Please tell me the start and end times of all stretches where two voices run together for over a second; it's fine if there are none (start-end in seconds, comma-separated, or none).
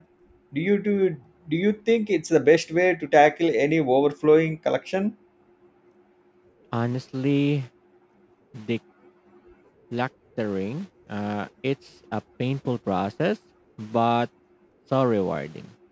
none